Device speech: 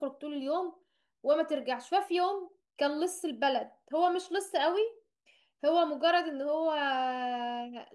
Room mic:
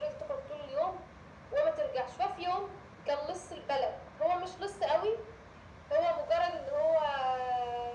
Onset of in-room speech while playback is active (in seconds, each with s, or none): none